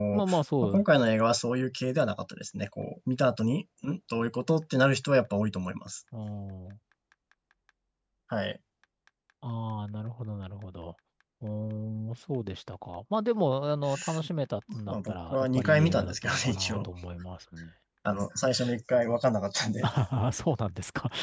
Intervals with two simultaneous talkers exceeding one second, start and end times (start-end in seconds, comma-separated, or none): 14.9-16.9